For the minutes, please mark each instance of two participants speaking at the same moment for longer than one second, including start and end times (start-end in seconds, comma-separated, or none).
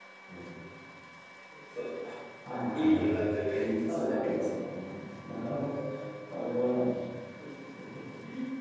2.5-4.5